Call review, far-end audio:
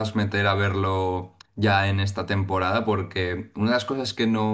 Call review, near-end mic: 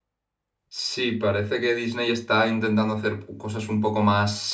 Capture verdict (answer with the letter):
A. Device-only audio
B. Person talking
B